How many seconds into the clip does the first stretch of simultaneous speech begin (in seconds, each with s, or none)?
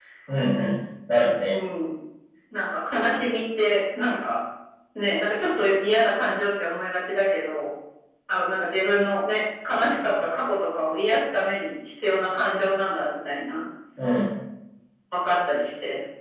none